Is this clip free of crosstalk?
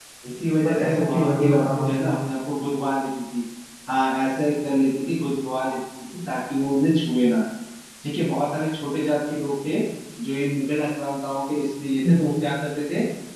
No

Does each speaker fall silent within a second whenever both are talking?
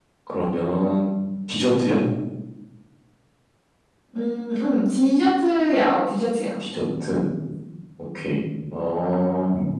Yes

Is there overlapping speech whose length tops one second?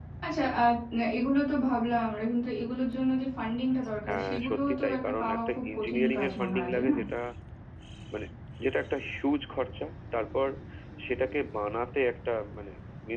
Yes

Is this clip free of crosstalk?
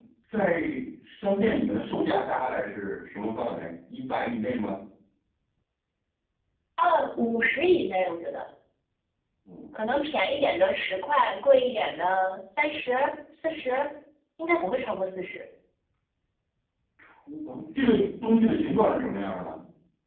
Yes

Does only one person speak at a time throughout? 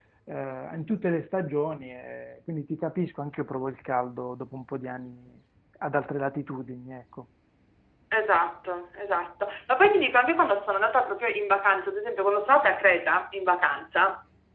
Yes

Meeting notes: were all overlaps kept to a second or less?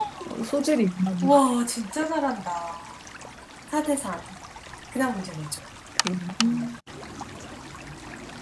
Yes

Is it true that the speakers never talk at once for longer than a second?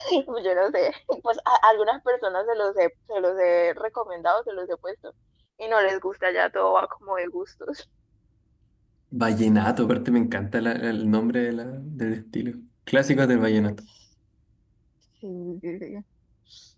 Yes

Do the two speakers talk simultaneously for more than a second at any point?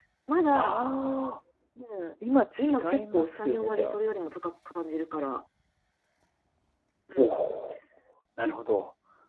Yes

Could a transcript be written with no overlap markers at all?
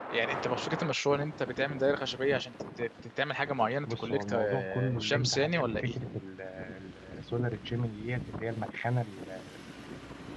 No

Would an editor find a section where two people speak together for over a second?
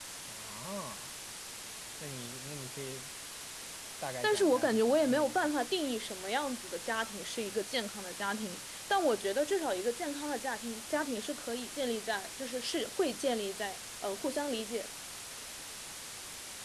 Yes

